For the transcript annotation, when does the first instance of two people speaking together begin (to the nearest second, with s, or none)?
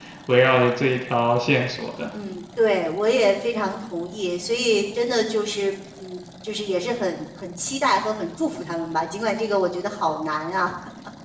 none